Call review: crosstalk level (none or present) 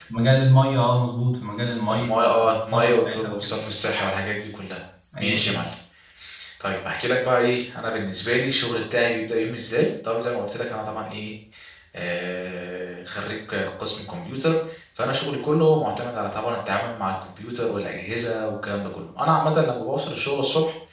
present